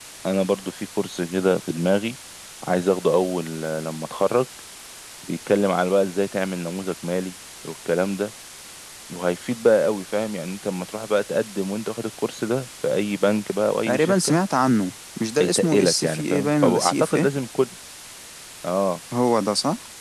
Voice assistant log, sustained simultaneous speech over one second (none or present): present